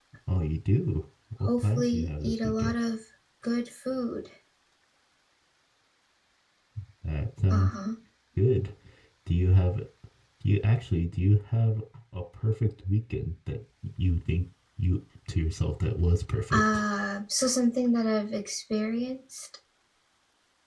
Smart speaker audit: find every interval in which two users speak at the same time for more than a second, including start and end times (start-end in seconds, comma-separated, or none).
1.4-2.8